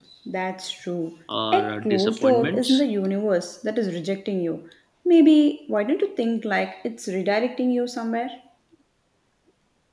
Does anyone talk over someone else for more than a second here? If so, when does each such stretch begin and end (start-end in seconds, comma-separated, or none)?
1.5-2.8